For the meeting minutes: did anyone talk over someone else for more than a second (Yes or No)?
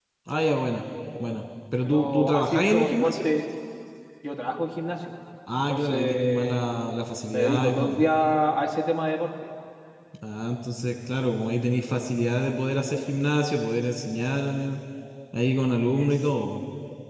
Yes